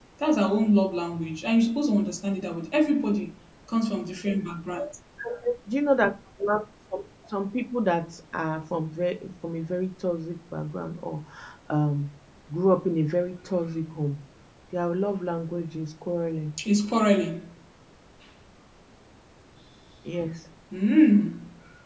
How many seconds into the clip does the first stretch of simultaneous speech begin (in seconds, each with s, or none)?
none